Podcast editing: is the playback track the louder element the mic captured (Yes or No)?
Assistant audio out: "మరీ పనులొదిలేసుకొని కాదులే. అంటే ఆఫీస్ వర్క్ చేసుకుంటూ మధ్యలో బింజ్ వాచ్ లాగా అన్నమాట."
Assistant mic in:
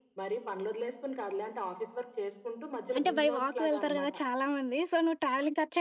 No